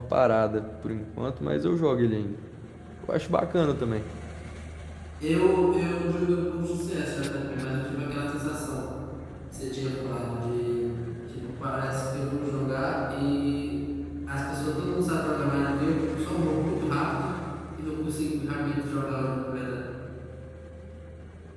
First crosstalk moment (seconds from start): none

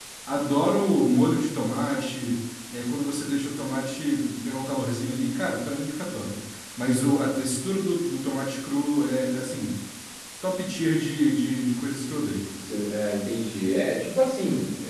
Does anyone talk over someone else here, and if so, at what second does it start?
none

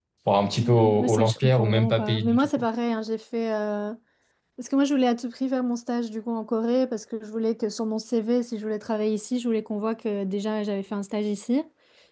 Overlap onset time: 1 s

